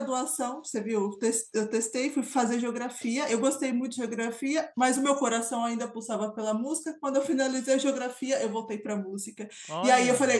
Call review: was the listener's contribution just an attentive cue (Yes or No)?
Yes